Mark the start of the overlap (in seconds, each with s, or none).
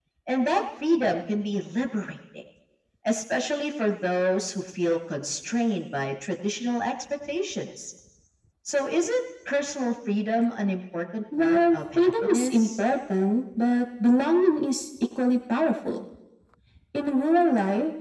11.3 s